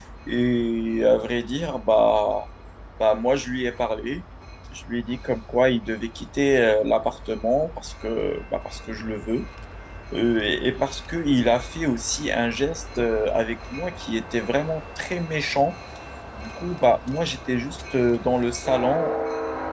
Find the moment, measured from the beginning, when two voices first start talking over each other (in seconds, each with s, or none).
none